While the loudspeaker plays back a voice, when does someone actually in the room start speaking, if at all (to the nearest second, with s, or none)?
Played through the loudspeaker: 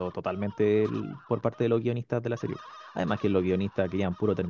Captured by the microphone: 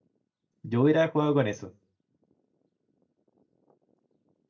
1 s